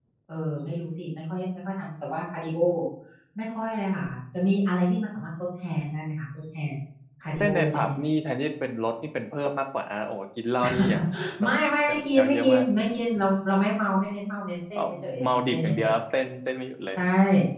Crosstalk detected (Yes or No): Yes